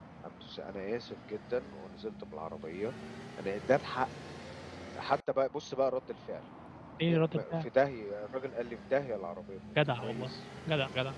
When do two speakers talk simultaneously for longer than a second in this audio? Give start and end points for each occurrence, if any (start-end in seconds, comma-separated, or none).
none